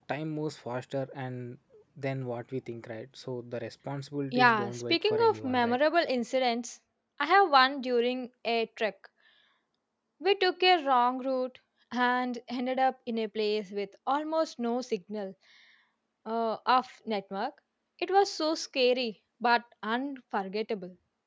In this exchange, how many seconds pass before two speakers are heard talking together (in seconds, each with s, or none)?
4.3 s